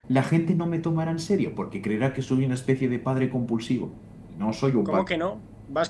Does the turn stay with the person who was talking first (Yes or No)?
No